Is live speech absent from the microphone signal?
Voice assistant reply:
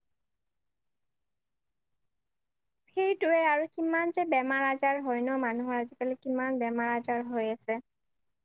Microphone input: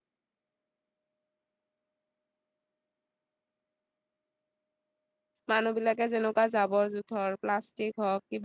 No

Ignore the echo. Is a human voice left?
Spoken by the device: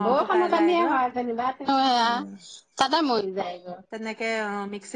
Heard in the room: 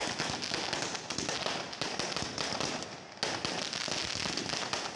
No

